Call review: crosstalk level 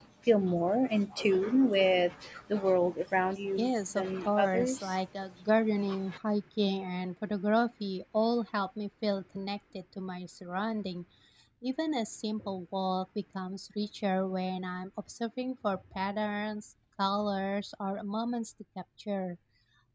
present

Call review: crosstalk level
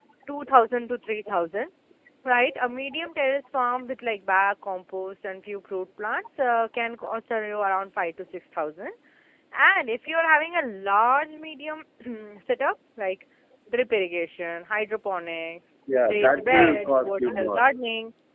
present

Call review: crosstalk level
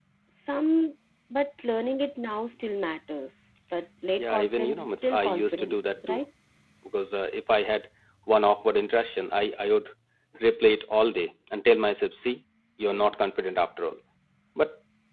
present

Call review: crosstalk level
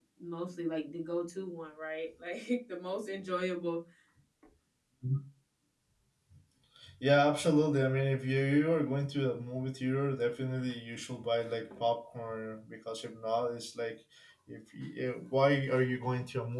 none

